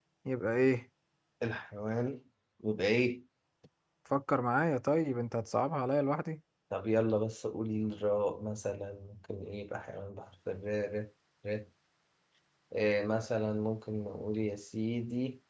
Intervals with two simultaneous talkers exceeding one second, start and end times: none

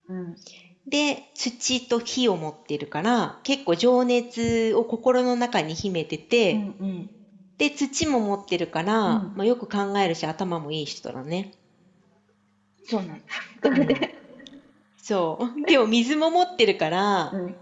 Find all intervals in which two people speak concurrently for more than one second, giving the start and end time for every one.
none

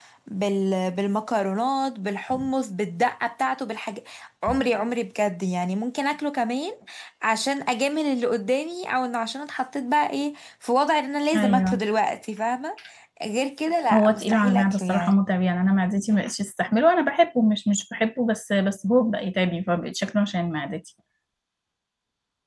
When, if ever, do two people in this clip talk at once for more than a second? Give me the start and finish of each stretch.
13.9-15.2

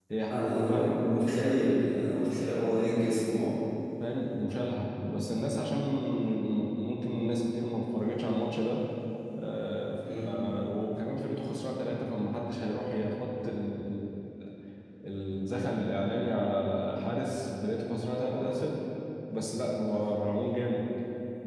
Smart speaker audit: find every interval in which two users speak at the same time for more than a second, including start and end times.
none

